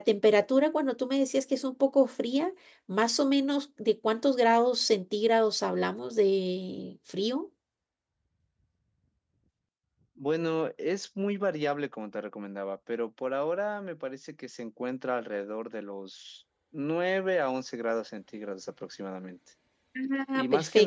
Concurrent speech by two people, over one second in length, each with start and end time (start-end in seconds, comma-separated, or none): none